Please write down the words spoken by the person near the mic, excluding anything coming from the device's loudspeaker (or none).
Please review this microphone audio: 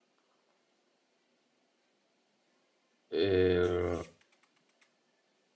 إيه